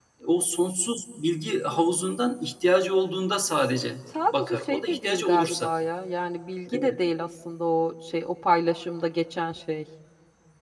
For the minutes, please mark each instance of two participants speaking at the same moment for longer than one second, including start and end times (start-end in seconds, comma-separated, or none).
4.3-5.7